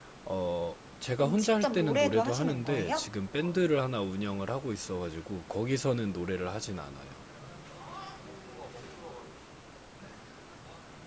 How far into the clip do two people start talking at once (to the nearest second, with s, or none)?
1 s